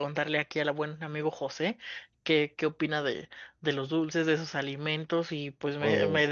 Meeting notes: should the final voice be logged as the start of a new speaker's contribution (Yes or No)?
No